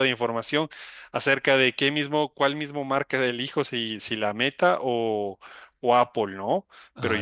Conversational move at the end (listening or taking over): listening